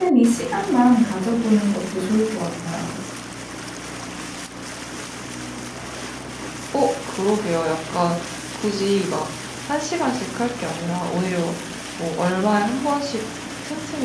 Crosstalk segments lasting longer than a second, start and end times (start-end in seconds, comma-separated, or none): none